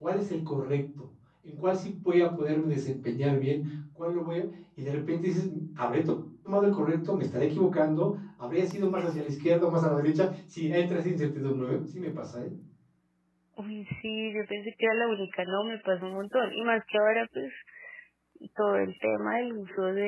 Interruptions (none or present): none